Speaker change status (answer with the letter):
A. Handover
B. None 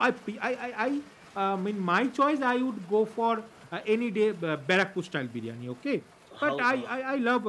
B